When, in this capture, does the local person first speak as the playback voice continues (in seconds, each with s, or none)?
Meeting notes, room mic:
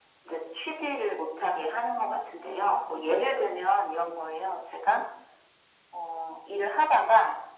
none